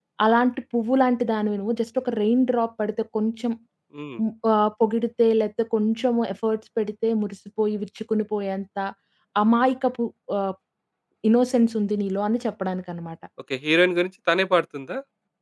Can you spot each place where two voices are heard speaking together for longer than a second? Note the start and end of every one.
none

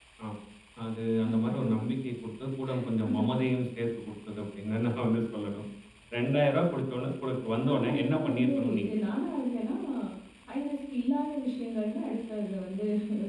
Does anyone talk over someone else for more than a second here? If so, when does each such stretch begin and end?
7.6-9.1

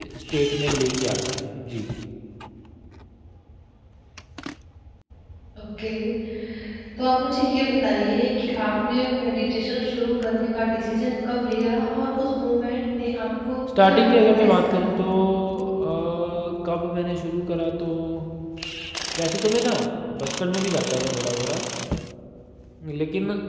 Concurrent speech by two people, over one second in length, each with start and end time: 13.8-15.0

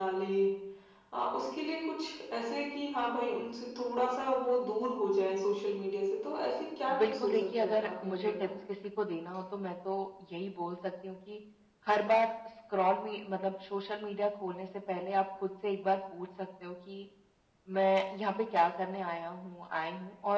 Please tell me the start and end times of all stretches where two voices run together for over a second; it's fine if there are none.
7.0-8.5

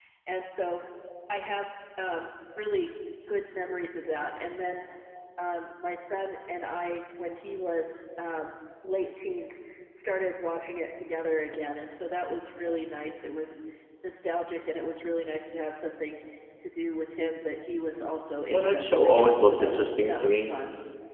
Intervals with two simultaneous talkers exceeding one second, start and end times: 18.5-20.5

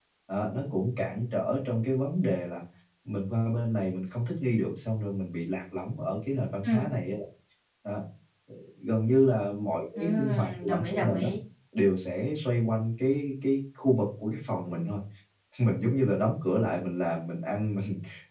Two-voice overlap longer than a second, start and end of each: 9.9-11.3

